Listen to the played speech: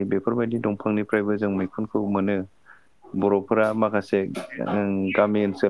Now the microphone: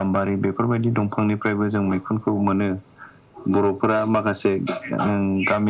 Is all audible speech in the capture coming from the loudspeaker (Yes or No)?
Yes